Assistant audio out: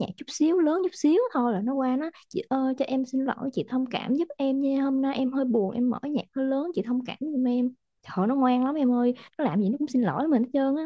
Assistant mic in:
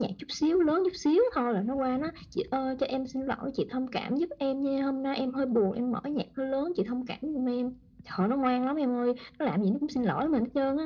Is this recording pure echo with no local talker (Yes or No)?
Yes